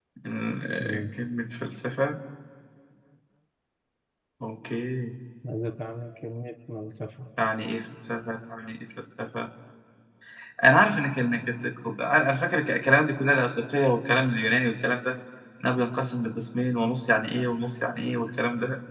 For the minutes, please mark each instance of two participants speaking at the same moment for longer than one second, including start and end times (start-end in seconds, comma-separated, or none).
none